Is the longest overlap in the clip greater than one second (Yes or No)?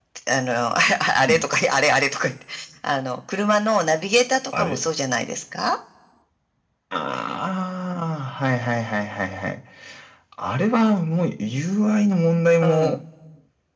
No